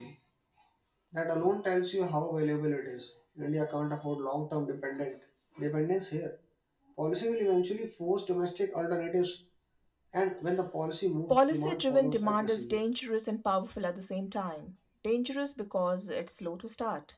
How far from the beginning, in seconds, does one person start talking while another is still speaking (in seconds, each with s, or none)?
11.3 s